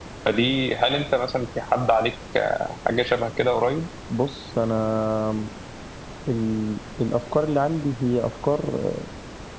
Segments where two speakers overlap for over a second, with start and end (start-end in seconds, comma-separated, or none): none